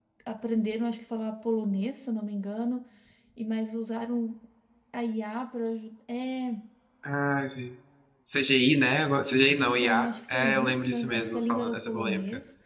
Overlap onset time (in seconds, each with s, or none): 9.6 s